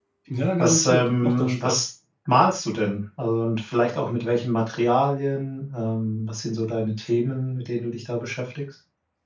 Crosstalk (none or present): present